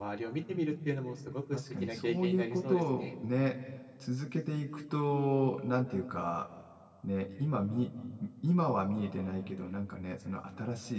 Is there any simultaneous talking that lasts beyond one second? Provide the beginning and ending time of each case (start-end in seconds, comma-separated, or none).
1.5-3.1